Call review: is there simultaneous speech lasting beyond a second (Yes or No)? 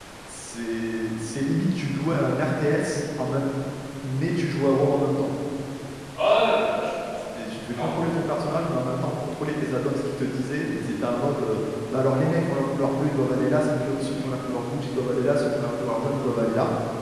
No